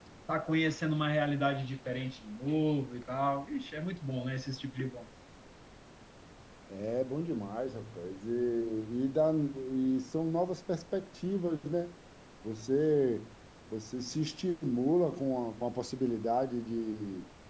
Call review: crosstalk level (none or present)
none